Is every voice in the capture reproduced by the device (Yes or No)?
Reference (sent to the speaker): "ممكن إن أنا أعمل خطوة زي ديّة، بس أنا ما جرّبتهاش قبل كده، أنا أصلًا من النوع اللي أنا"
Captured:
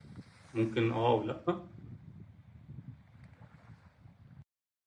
No